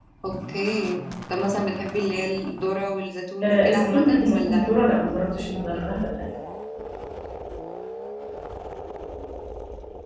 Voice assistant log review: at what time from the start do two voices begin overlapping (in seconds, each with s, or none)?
3.4 s